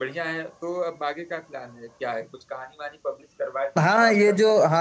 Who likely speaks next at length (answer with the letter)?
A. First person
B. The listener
B